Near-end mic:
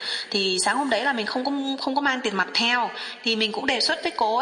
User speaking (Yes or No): No